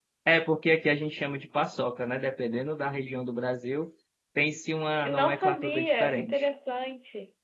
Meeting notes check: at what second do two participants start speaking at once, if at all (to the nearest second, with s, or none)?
5 s